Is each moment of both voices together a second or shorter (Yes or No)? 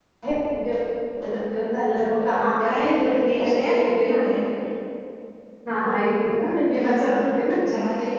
No